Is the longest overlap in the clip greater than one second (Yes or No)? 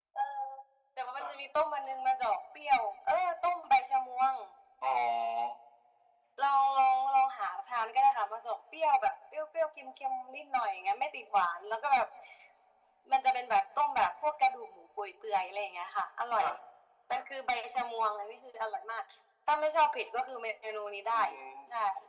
No